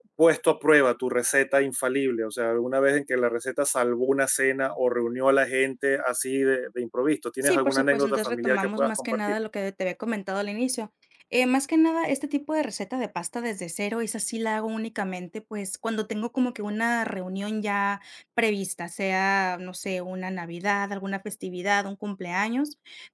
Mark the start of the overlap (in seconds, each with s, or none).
7.4 s